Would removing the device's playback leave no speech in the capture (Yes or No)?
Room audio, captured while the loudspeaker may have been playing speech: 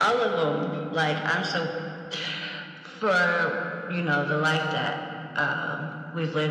Yes